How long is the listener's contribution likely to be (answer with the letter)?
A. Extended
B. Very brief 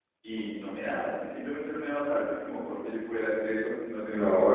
A